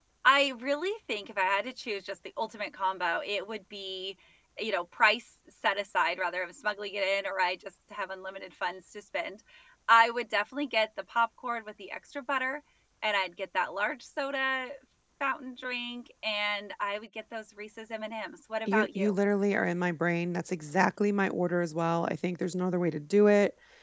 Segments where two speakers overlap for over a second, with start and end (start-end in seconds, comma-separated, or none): none